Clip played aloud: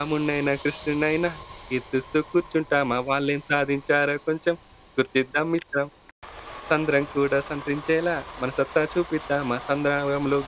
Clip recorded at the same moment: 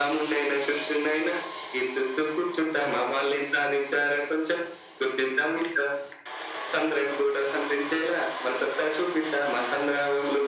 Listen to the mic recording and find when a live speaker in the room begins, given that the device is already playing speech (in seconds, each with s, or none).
none